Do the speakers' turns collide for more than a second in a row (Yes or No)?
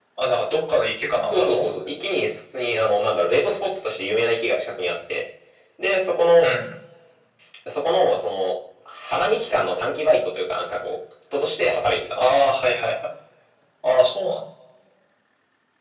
No